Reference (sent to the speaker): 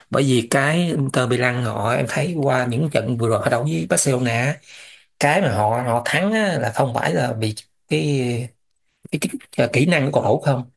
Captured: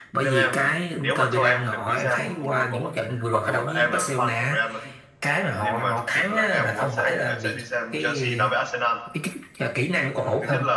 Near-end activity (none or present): present